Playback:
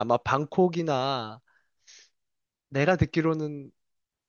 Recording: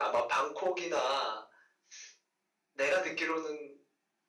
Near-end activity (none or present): none